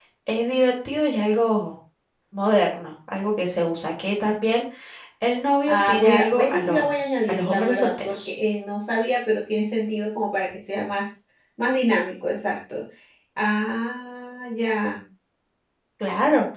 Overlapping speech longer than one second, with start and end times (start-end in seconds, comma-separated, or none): 5.7-8.3